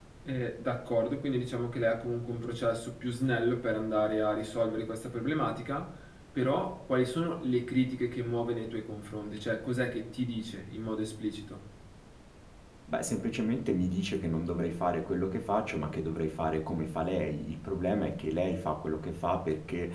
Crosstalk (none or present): none